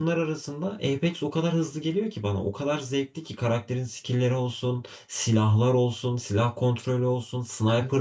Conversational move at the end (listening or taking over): taking over